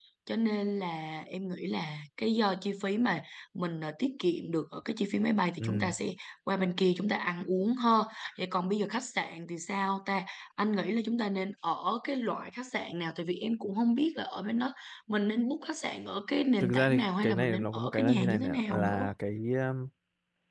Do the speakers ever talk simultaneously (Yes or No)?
Yes